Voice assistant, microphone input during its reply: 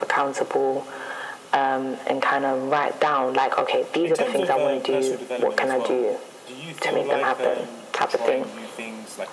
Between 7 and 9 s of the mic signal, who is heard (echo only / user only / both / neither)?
both